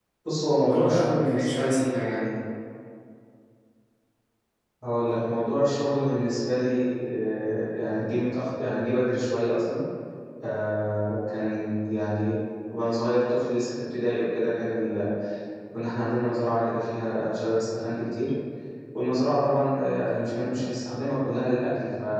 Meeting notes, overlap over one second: present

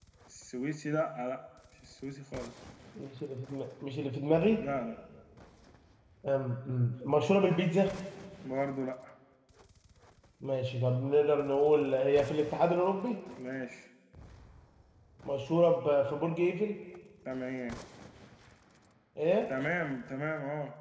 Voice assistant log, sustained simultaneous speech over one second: none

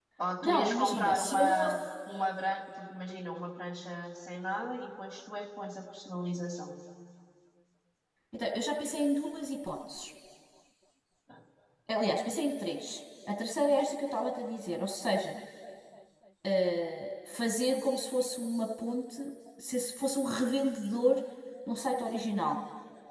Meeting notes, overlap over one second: present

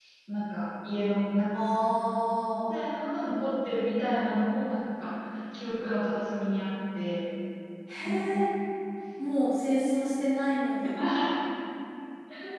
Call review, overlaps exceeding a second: none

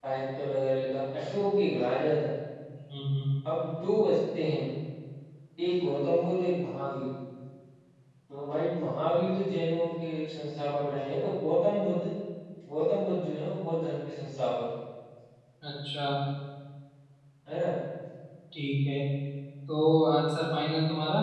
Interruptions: none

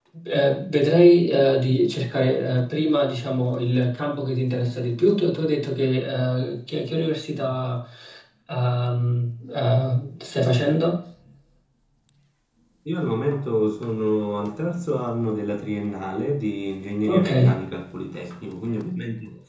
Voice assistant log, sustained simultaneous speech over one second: none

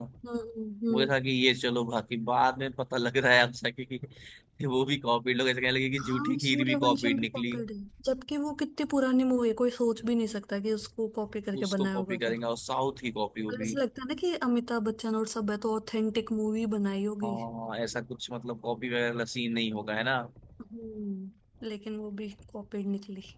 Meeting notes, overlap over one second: present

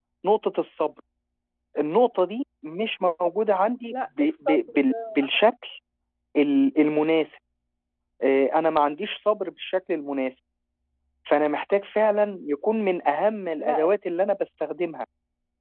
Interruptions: present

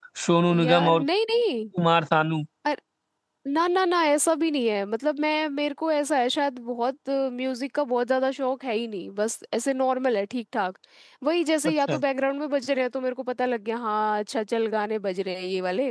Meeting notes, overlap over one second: none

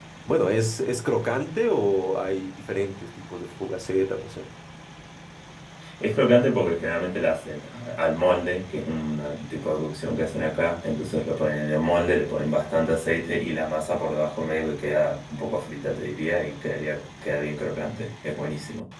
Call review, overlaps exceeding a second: none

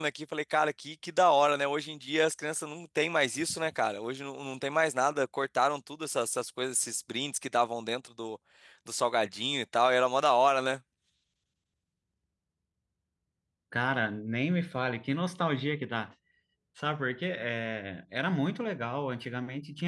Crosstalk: none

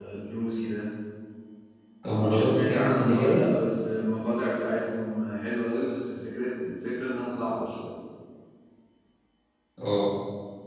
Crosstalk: present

